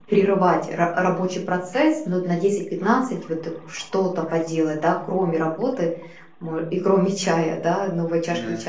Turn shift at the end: No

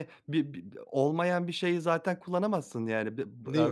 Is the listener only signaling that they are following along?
Yes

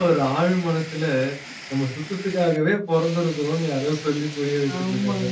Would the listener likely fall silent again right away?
No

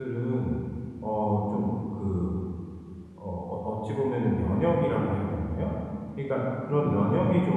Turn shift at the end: No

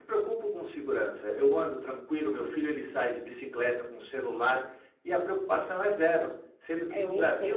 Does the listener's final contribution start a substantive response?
No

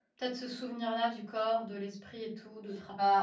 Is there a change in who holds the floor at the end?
Yes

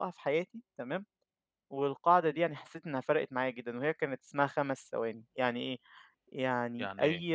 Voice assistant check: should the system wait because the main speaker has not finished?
Yes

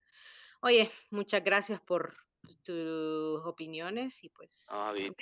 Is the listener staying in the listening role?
No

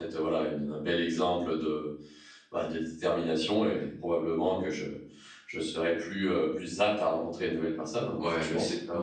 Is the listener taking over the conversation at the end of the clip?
Yes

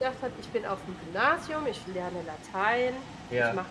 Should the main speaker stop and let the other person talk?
No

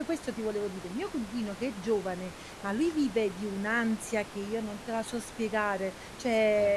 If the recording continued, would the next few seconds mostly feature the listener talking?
No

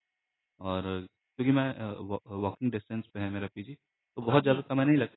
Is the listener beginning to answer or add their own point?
No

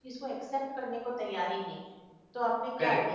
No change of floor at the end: No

